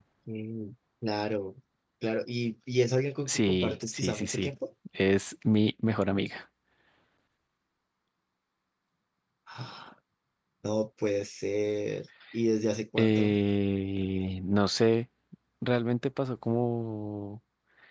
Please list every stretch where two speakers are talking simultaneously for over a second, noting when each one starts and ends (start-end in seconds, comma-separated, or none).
3.3-4.5